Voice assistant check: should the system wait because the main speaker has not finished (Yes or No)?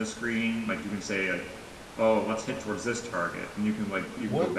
No